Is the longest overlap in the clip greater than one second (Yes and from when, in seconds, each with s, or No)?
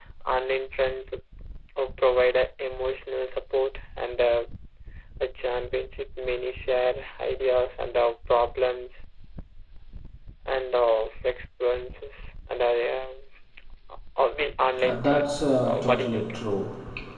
Yes, from 14.8 s